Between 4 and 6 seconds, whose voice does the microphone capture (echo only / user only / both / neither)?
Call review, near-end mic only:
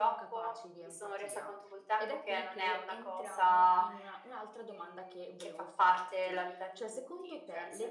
both